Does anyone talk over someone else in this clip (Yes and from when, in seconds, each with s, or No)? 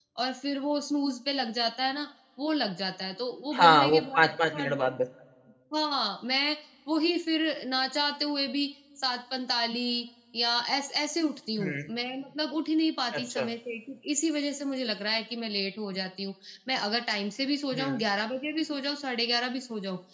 Yes, from 3.6 s